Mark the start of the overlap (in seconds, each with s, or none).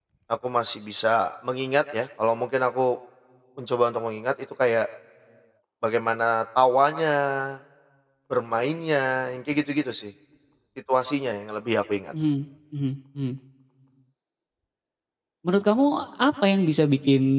none